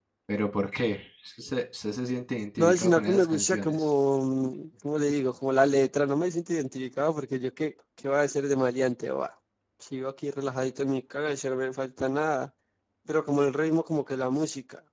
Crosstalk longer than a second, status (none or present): present